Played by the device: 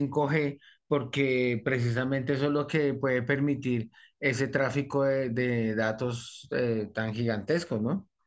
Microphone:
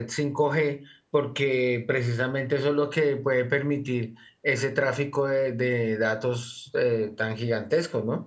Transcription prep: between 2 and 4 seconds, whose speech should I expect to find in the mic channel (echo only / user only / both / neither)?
echo only